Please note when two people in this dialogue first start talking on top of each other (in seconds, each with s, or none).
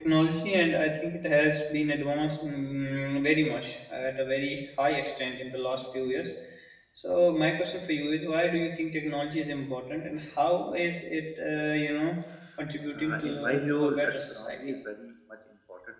13.0 s